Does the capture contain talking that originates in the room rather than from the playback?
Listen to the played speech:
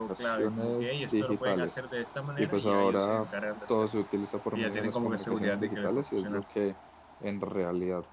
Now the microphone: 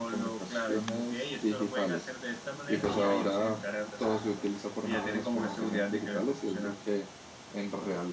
No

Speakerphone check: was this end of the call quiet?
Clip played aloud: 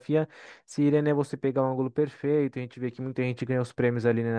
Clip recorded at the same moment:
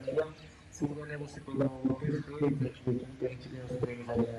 Yes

